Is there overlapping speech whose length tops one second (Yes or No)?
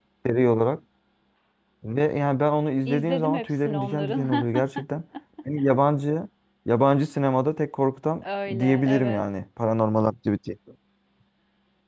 Yes